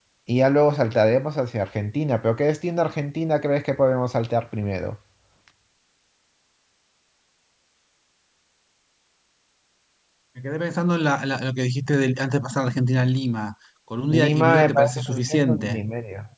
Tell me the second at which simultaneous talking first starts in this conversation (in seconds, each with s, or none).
14.1 s